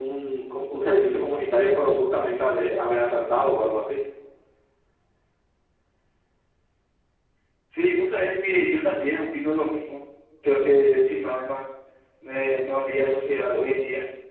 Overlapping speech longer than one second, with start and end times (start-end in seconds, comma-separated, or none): none